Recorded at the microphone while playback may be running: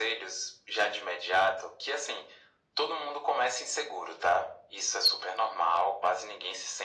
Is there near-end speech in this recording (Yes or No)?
No